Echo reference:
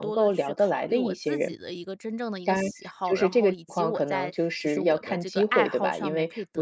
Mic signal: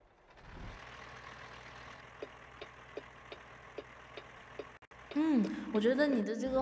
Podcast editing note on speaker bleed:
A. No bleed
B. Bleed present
A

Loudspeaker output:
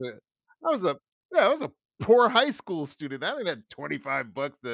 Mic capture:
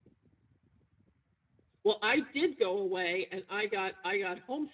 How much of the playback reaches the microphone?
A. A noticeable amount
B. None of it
B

